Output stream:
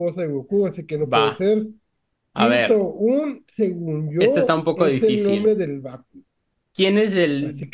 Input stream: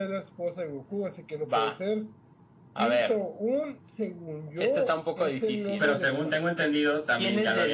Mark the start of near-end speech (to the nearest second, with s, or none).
6 s